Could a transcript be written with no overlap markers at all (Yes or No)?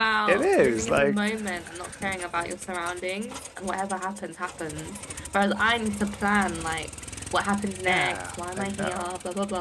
No